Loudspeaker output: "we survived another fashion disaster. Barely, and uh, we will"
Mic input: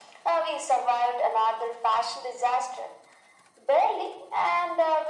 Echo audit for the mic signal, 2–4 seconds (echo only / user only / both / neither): echo only